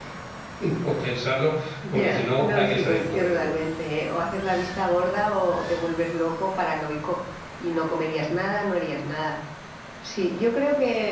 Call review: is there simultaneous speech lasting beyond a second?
Yes, from 1.8 s

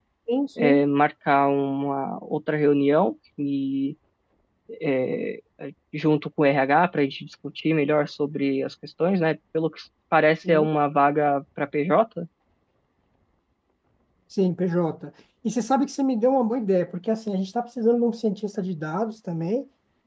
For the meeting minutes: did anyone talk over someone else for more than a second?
No

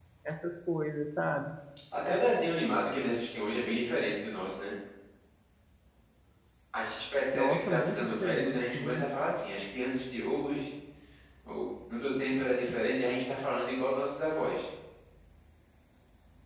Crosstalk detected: Yes, from 7.3 s

